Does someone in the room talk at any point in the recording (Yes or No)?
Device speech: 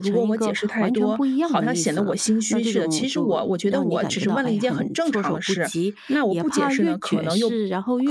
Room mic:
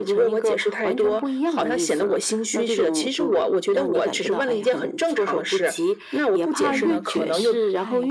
Yes